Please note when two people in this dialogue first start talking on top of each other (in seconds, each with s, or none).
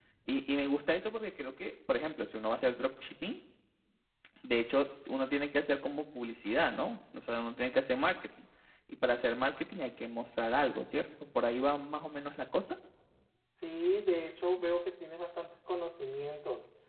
none